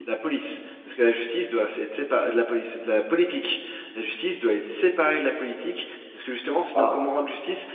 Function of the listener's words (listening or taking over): listening